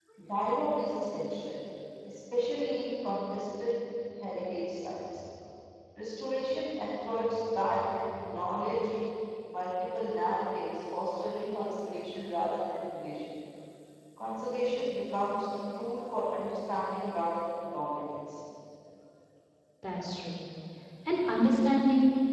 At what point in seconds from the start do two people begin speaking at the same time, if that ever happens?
none

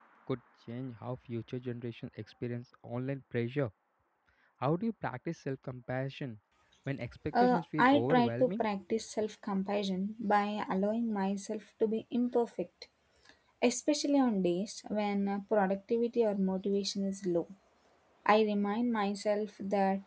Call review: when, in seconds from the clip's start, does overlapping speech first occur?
7.4 s

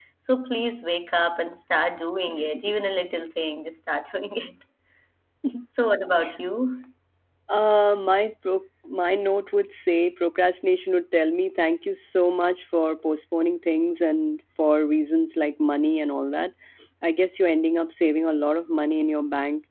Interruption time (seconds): none

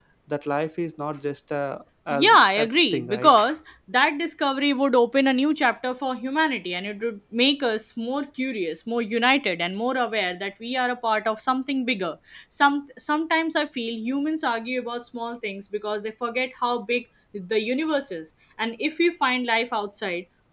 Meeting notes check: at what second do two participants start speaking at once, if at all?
2.1 s

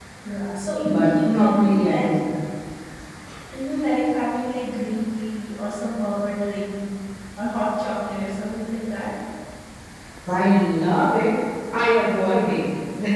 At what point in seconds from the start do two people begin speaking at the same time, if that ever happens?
0.9 s

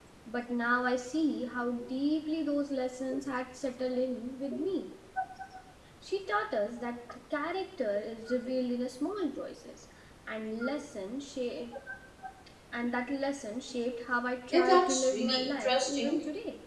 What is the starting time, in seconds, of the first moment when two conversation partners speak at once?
14.5 s

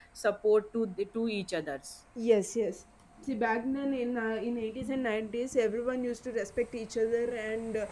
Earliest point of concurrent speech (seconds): none

